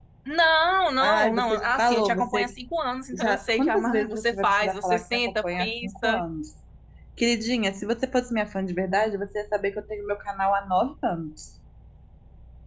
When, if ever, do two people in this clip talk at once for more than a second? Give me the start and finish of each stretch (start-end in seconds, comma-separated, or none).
1.0-2.5, 3.1-6.2